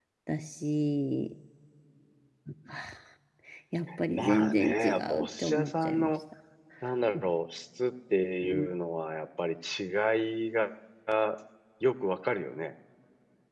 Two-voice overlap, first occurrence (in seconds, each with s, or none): 4.1 s